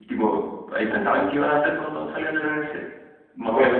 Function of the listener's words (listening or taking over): listening